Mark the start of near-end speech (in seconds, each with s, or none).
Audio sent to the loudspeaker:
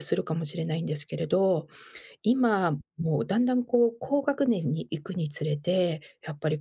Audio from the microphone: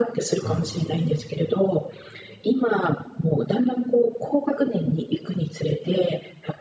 0.3 s